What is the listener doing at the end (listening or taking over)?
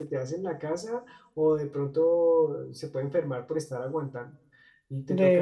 listening